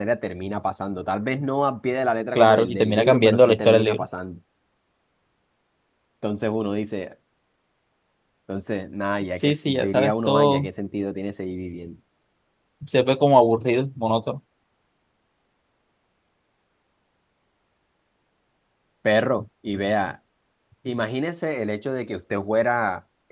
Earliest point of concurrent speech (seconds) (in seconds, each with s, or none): 2.4 s